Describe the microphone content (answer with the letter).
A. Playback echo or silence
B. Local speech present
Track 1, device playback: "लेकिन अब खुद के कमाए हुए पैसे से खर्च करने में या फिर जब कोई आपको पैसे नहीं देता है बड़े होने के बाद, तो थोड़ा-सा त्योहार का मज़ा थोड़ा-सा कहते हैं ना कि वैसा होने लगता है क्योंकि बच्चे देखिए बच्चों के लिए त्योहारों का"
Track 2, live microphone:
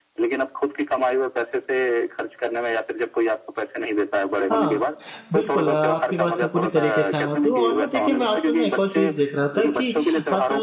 B